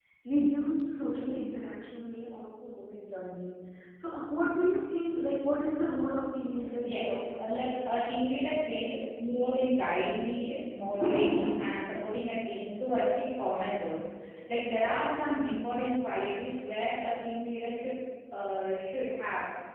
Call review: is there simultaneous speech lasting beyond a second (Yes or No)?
Yes